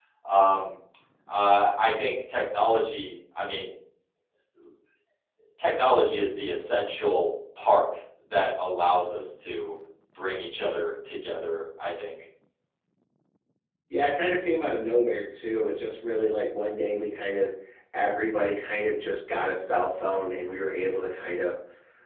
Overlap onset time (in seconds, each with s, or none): none